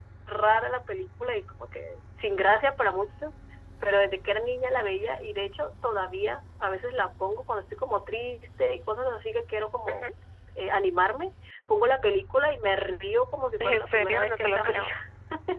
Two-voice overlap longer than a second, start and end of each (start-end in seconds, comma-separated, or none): 13.6-14.9